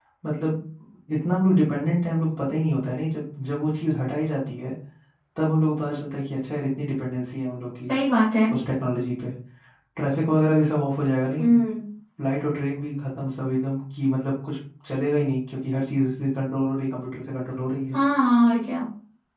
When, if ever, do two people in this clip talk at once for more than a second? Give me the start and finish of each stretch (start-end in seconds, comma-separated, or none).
none